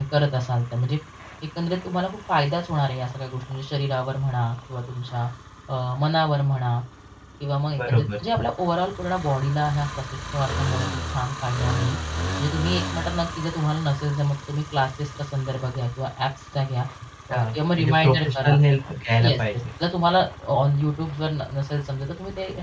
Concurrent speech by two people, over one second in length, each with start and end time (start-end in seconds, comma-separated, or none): 17.3-18.5